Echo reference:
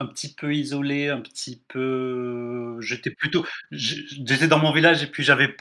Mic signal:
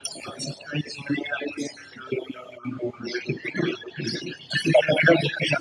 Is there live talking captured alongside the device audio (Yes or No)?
No